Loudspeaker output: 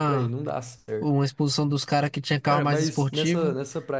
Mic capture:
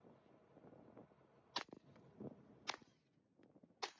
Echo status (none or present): none